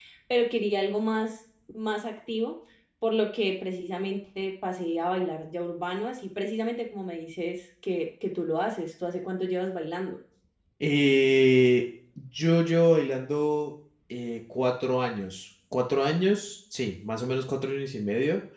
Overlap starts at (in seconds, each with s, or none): none